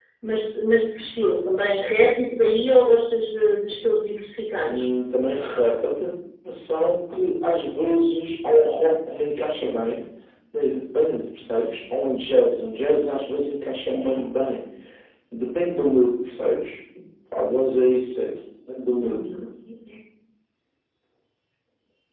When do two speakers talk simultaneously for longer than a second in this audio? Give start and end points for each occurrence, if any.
none

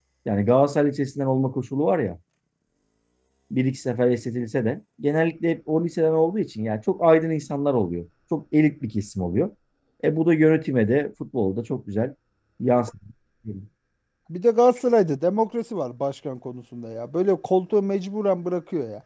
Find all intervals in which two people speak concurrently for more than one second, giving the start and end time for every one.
none

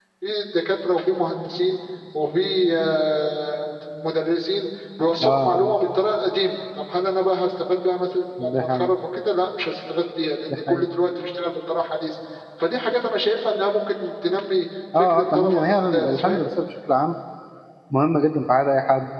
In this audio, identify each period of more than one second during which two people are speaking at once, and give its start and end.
15.0-16.4

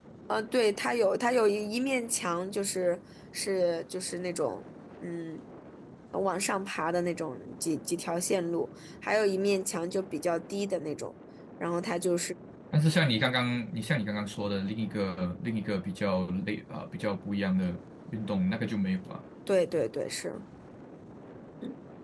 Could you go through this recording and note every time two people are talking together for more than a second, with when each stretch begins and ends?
none

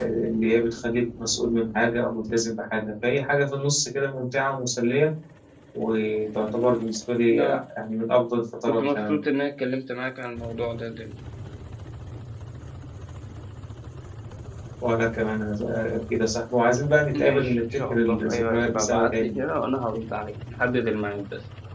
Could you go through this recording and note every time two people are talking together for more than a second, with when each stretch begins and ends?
17.1-19.4

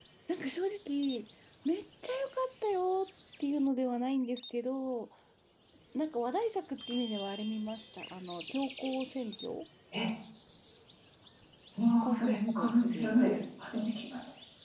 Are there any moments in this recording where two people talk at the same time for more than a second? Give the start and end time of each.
12.0-13.3

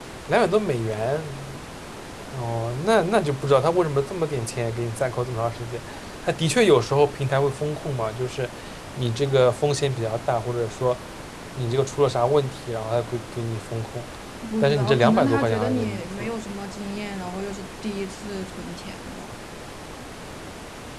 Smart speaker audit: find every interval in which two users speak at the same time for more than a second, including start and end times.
14.6-16.1

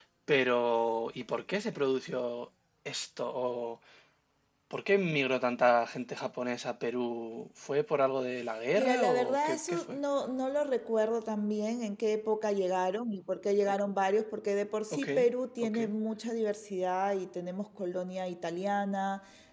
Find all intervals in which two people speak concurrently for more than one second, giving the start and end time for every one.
8.8-10.0

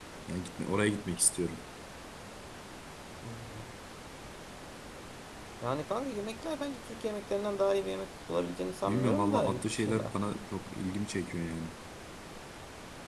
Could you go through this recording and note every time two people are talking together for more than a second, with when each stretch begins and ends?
8.9-10.1

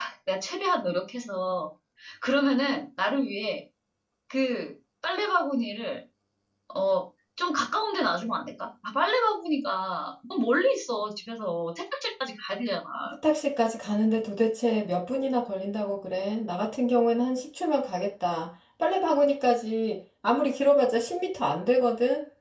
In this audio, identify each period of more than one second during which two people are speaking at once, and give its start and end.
none

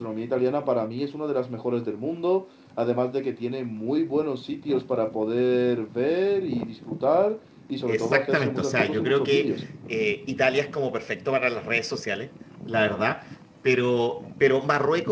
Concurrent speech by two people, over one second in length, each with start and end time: 7.9-9.6

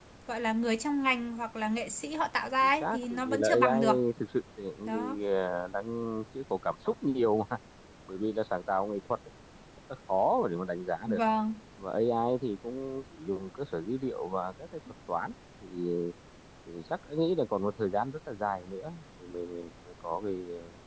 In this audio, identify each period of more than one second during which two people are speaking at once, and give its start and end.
2.6-3.8

